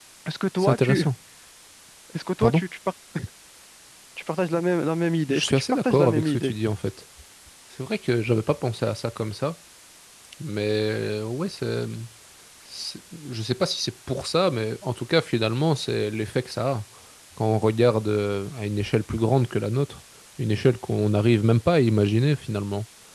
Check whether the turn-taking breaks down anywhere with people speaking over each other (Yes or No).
Yes